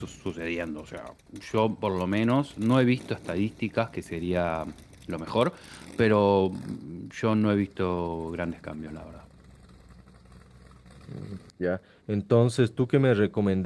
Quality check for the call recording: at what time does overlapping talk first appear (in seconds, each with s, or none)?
none